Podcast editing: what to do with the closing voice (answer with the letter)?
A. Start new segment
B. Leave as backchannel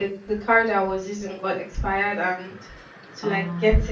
B